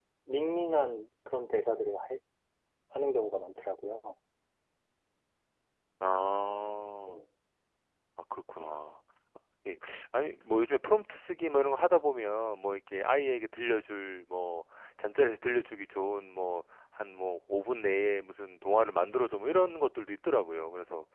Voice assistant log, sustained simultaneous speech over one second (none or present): none